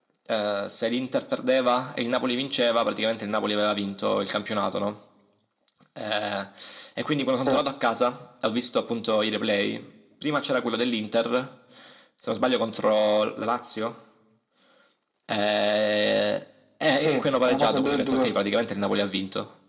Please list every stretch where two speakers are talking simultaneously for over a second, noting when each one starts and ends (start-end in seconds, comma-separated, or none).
17.0-18.3